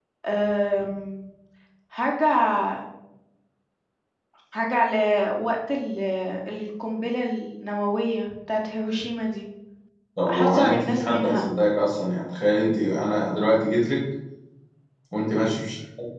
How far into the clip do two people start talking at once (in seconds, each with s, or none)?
10.3 s